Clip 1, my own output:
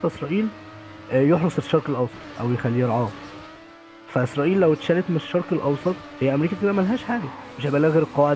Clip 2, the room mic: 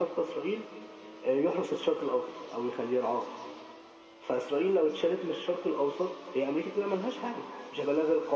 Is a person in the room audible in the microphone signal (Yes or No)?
No